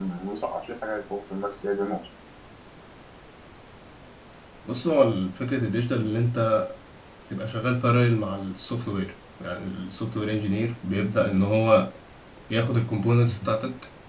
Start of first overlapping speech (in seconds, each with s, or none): none